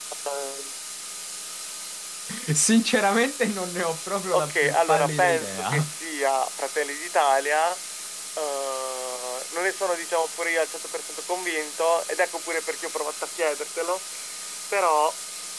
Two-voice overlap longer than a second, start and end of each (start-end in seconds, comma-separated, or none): 4.3-5.9